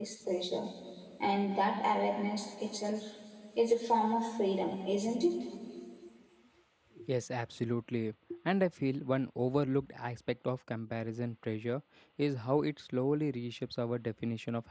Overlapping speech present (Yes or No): No